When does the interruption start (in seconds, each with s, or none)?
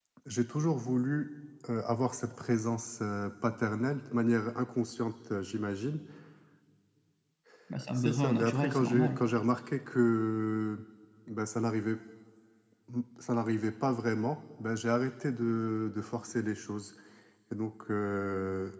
7.9 s